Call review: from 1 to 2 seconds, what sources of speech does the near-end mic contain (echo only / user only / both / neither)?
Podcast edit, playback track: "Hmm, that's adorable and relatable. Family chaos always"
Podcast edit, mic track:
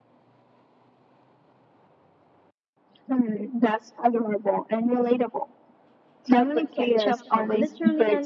neither